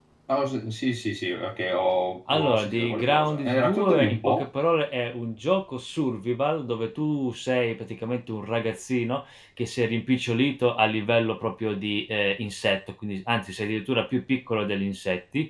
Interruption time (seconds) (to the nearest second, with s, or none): 2 s